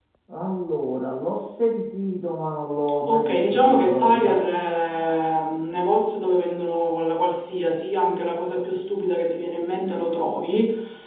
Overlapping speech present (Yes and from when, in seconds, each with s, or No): Yes, from 3.1 s